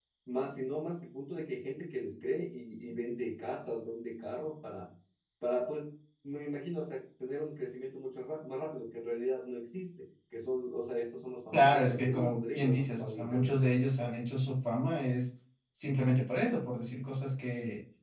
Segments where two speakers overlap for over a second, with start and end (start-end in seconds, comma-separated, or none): 11.5-13.6